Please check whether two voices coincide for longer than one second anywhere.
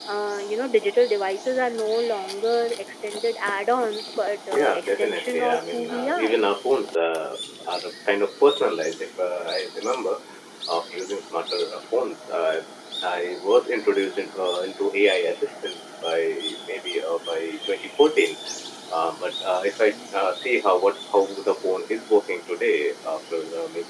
Yes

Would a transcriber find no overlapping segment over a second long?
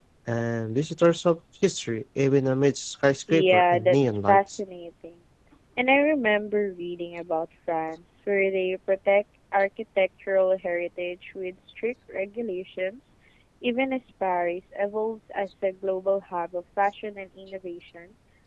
No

